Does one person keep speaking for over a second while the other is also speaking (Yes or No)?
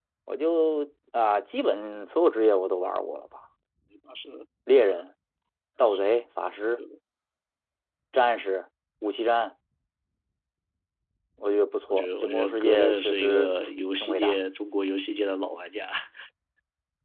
Yes